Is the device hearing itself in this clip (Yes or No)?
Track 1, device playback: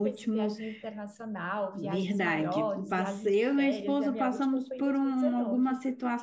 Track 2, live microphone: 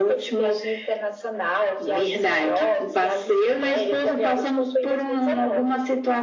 Yes